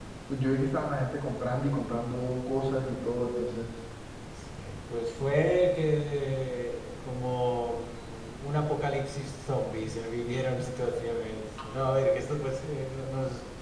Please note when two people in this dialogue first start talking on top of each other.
none

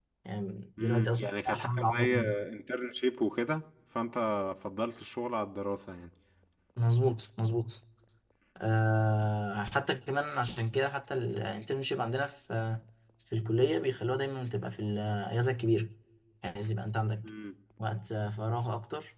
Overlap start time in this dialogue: 0.8 s

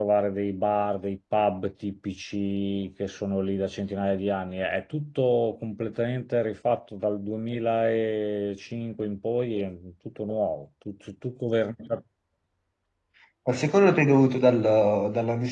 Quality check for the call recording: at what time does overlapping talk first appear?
none

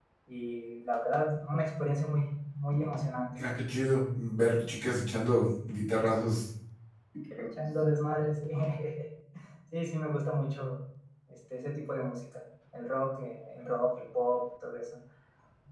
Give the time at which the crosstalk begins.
none

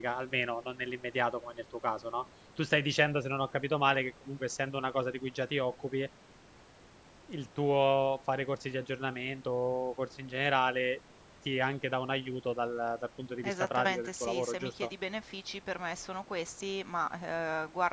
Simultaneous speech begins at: 13.4 s

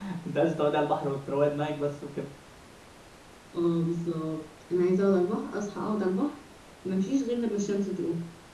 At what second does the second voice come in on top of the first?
none

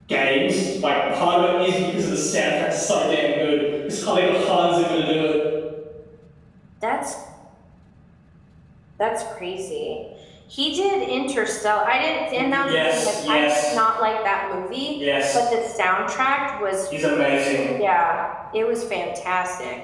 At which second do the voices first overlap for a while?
12.3 s

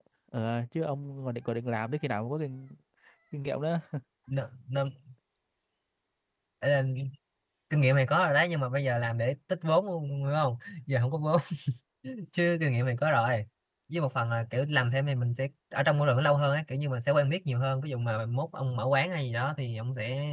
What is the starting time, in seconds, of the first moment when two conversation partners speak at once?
none

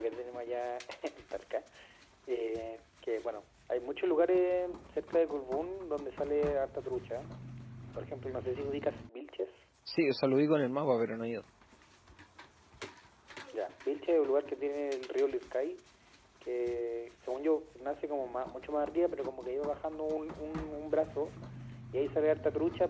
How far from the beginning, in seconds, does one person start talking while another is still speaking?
none

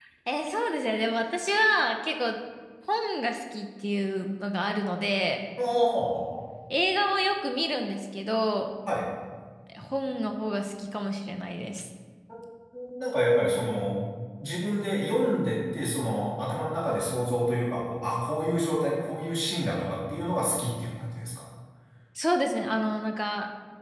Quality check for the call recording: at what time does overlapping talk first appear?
none

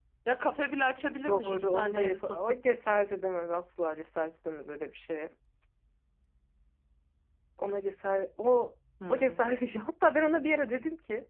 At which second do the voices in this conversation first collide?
1.3 s

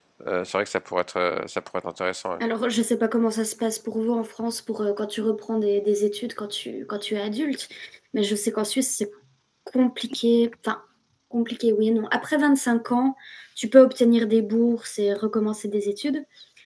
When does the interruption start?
none

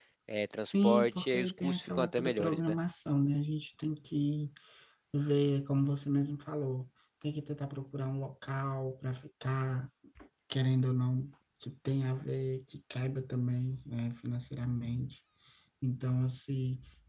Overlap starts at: 0.8 s

